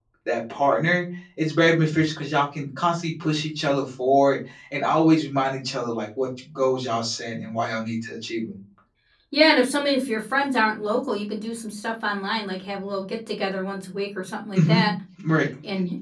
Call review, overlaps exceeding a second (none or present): none